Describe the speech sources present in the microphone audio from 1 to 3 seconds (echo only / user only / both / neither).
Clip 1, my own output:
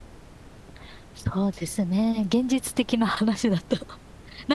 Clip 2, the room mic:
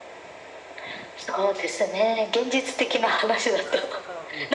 echo only